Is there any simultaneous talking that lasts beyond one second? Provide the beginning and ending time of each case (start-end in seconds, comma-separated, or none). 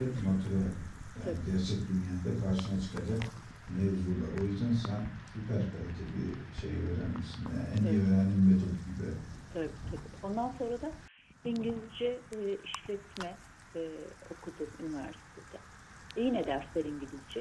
none